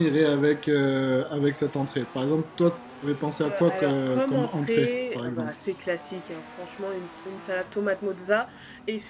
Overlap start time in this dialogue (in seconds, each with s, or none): 3.4 s